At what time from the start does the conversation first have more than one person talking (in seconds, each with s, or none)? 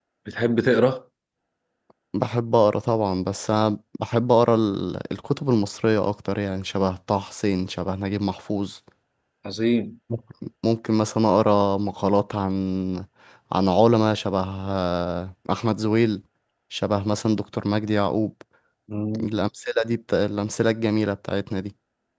none